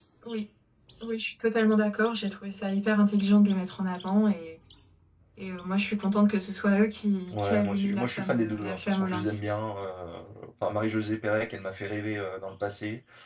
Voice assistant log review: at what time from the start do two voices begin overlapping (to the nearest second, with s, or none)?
7 s